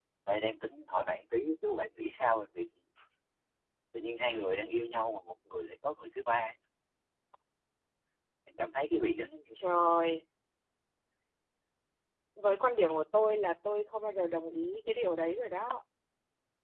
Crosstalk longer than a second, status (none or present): none